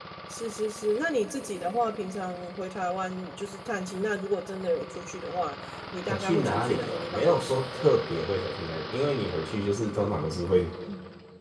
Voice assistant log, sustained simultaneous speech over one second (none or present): present